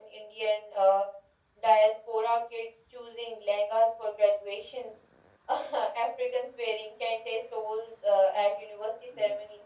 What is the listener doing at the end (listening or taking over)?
listening